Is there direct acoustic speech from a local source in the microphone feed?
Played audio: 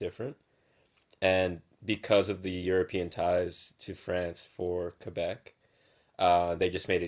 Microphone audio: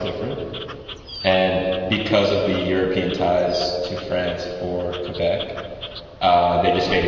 No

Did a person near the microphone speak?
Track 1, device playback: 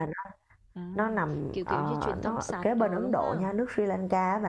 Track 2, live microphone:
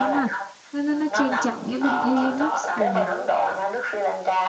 Yes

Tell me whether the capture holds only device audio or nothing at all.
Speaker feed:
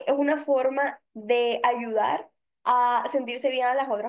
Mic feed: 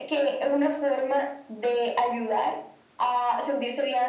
Yes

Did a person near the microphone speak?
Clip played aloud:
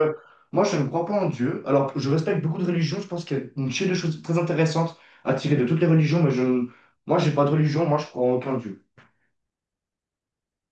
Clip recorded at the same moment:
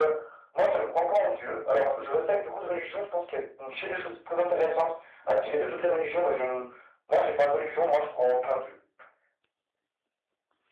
No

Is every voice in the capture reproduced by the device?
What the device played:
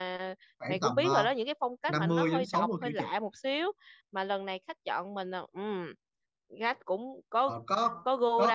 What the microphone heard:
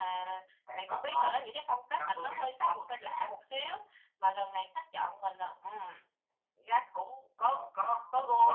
Yes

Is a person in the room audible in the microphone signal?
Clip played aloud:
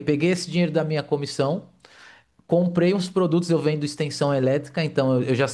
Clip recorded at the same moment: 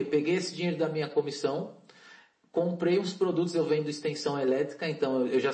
No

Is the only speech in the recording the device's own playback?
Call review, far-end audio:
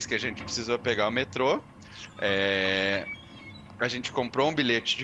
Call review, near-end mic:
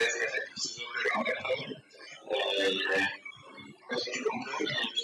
Yes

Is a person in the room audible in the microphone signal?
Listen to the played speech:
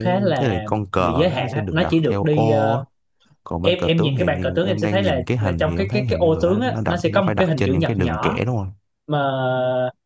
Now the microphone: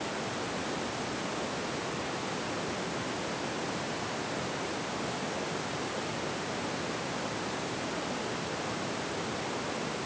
No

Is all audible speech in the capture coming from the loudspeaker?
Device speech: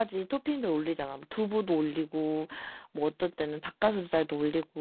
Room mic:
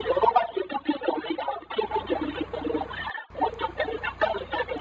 Yes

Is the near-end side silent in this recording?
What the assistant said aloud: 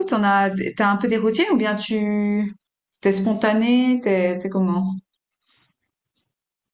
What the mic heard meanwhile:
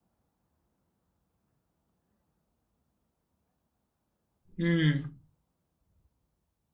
No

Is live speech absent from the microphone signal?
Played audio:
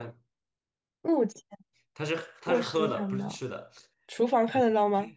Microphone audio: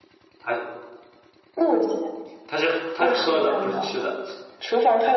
Yes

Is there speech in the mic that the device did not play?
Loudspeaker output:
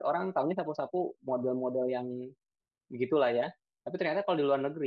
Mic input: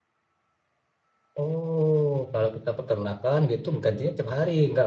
Yes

